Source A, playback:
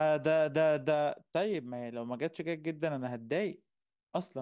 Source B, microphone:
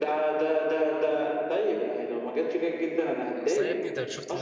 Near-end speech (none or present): present